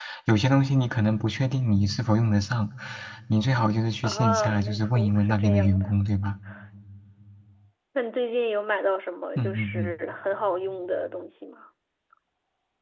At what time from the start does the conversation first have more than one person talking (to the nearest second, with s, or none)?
4 s